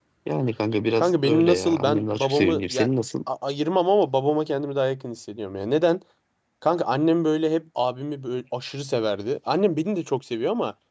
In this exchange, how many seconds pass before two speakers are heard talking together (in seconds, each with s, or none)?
1.0 s